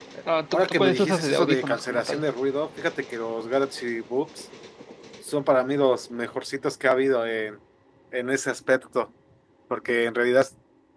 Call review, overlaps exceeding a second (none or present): present